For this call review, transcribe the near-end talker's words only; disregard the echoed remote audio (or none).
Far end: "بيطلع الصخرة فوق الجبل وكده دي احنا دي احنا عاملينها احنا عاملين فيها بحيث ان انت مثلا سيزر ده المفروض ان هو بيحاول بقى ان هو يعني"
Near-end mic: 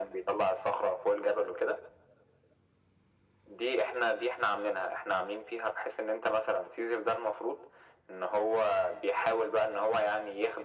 none